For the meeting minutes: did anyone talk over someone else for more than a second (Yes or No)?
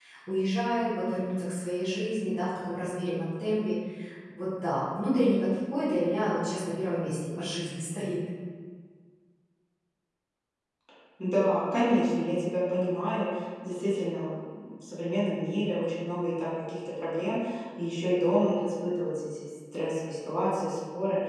No